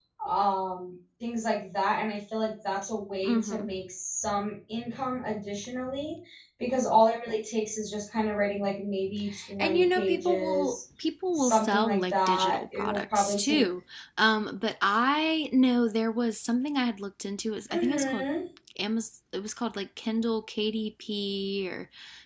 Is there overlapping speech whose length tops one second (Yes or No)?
Yes